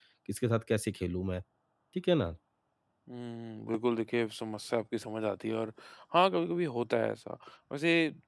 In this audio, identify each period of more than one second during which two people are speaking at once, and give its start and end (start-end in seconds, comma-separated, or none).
none